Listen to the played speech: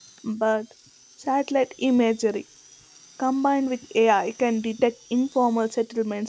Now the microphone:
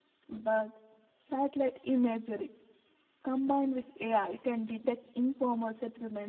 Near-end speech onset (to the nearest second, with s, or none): none